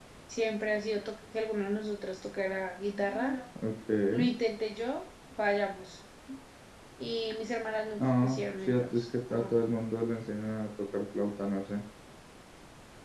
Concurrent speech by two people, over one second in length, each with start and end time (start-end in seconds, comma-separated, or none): 8.0-9.5